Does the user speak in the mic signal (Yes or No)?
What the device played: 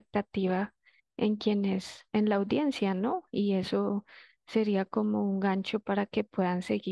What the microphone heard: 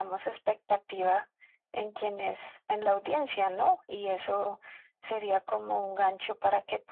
No